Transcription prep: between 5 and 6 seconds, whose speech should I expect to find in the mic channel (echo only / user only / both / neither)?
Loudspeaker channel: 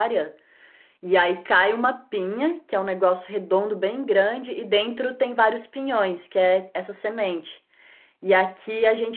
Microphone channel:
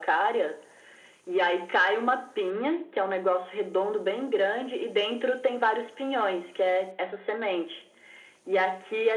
echo only